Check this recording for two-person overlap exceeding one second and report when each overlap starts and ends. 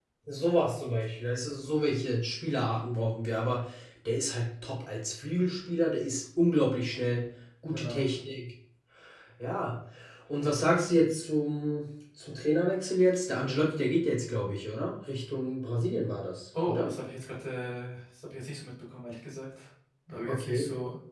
none

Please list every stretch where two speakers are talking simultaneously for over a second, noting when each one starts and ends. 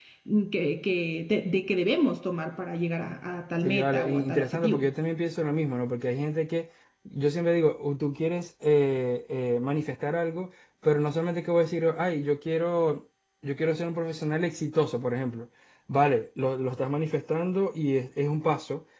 3.6-4.9

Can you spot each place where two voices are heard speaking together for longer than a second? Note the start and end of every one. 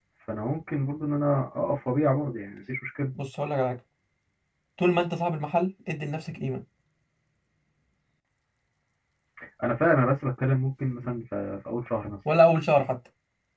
none

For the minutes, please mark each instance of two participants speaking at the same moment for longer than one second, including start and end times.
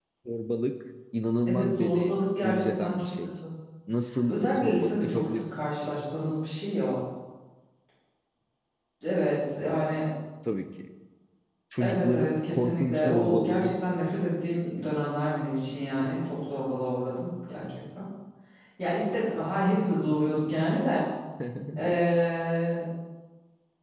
1.5-3.1, 4.3-5.9, 11.8-13.7

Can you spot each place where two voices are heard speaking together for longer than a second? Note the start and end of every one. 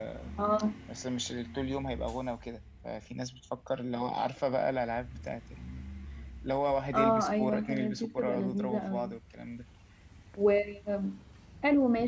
6.9-9.1

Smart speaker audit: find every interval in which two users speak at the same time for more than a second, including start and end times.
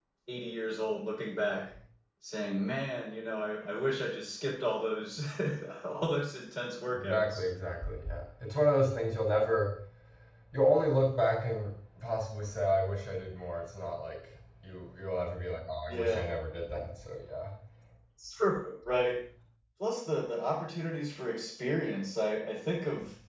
none

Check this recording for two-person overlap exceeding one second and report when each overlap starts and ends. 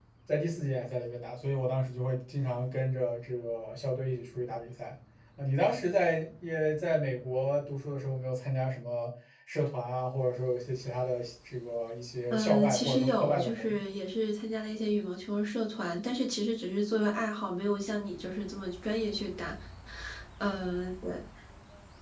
12.3-13.8

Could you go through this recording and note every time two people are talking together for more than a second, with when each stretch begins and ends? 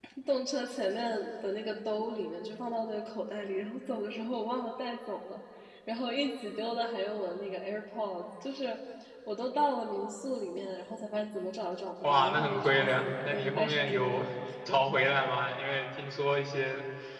12.0-14.2

